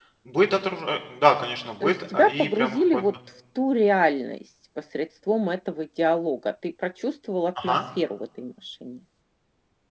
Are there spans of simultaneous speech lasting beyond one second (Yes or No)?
Yes